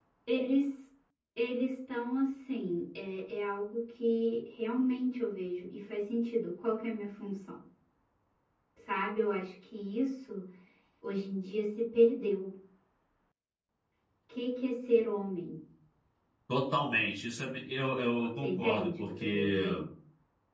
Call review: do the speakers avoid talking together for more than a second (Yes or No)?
No